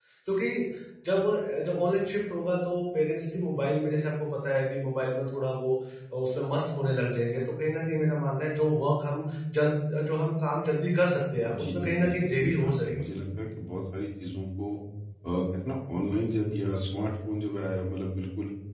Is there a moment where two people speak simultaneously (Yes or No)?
Yes